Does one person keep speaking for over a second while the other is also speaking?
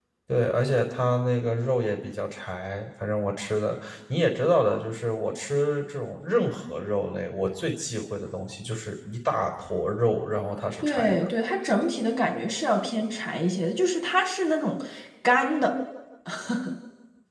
No

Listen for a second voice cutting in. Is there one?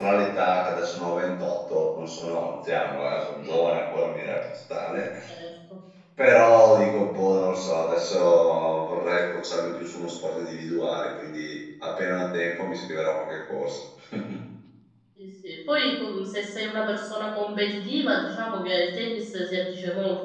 No

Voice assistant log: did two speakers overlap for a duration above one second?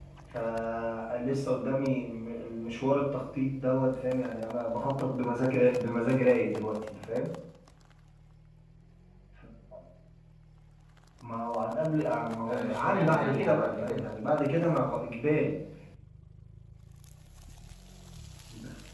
Yes, from 12.4 s

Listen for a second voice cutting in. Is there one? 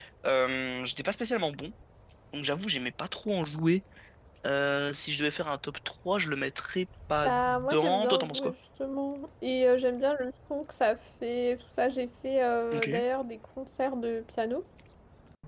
Yes, from 7.2 s

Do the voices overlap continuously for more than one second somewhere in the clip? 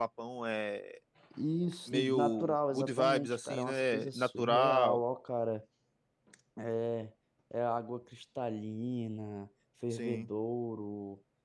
Yes, from 1.9 s

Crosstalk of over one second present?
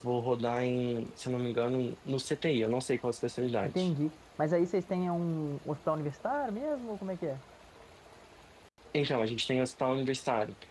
No

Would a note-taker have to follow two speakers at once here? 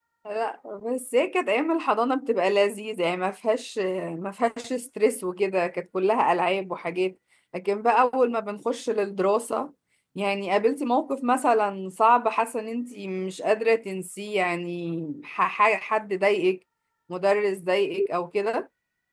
No

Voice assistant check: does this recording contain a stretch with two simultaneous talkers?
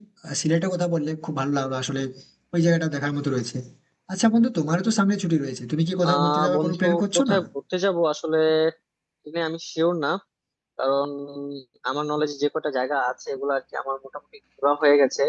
Yes, from 6.0 s

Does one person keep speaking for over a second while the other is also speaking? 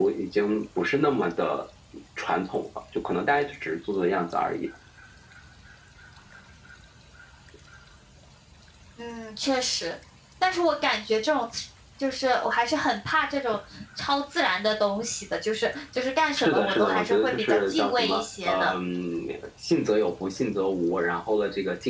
Yes, from 16.4 s

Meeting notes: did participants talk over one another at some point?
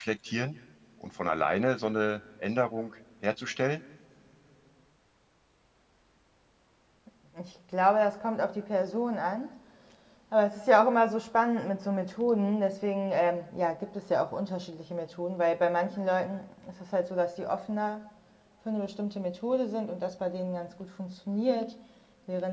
No

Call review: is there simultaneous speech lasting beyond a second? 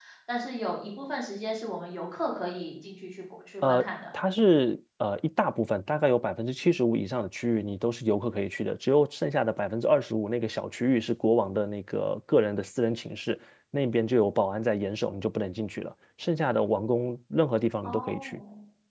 No

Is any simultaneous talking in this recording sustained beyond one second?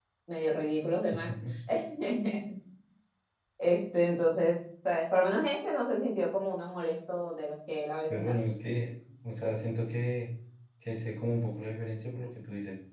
No

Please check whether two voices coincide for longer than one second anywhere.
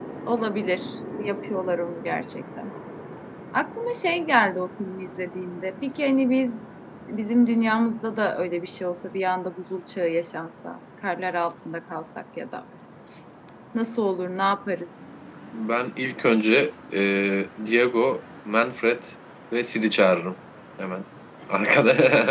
No

